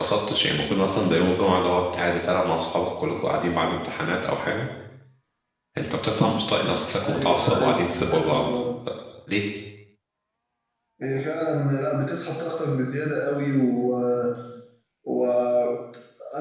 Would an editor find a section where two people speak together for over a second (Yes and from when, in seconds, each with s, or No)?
Yes, from 7.0 s